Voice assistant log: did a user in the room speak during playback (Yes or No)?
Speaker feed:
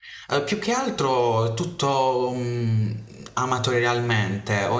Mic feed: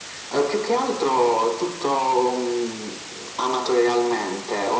No